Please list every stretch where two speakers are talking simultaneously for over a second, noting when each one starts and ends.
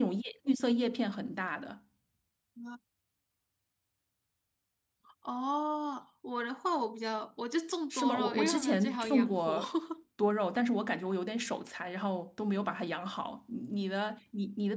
7.9-9.6

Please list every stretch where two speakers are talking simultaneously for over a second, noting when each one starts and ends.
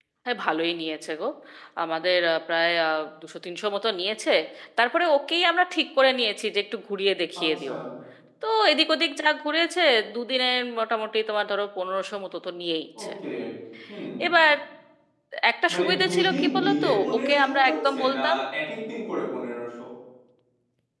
15.7-18.2

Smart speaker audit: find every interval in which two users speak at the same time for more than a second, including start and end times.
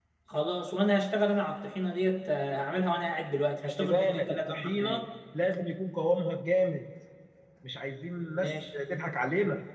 3.6-5.0

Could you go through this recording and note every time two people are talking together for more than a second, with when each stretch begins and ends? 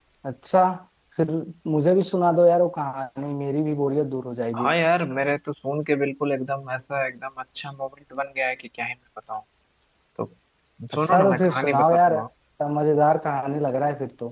11.0-12.2

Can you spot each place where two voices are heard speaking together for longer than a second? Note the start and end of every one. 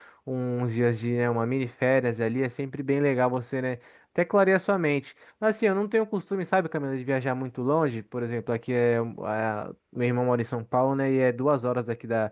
none

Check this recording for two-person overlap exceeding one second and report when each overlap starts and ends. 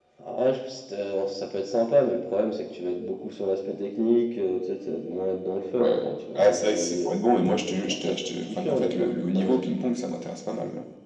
5.8-7.2, 7.9-9.6

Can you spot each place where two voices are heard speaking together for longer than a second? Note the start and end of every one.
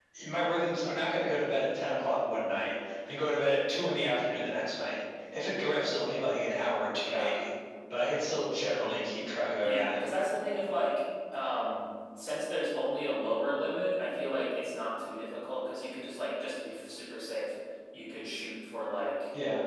none

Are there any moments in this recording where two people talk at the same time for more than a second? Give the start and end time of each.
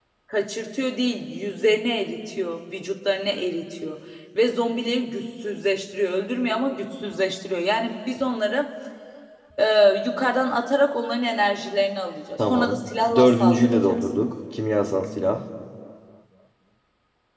12.4-14.1

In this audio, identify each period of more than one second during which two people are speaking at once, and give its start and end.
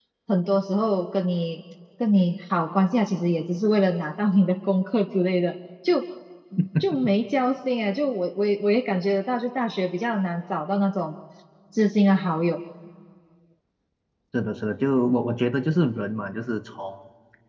none

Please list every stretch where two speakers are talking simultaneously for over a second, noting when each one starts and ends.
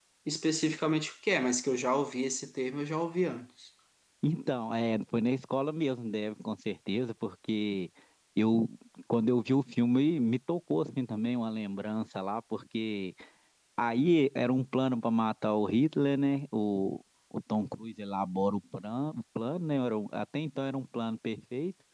none

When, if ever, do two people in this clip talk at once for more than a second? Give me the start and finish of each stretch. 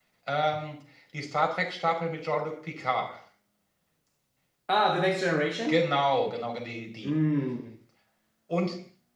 none

